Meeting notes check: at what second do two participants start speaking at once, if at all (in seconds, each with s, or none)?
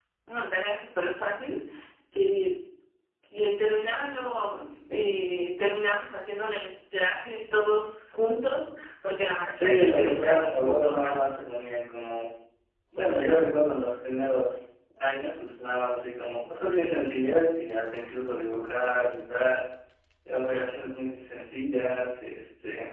9.6 s